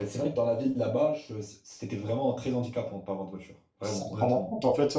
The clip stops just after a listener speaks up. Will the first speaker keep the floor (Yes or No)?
No